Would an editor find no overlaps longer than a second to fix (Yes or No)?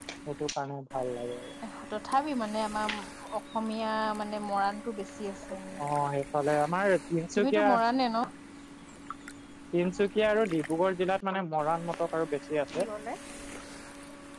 Yes